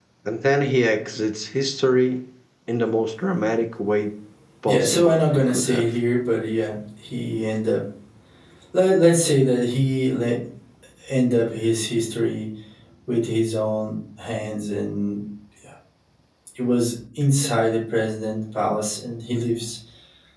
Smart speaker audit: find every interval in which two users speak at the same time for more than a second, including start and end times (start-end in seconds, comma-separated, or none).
4.6-5.8